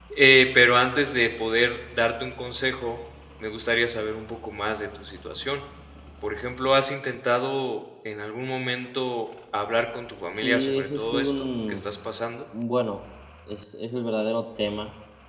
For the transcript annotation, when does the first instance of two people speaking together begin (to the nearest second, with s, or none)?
10 s